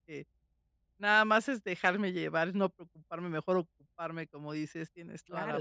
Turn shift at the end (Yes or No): Yes